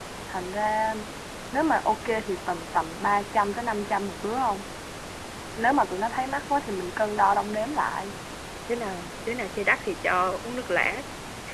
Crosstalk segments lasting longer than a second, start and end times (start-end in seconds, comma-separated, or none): none